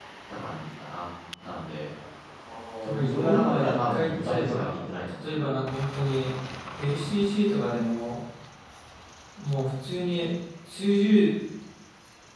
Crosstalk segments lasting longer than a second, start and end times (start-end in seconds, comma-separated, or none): 3.0-4.6